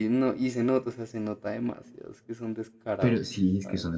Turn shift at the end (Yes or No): Yes